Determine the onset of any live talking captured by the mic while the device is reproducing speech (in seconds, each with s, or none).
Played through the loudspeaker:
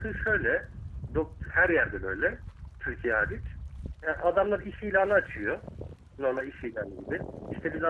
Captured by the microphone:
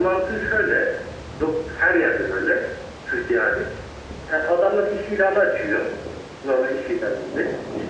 none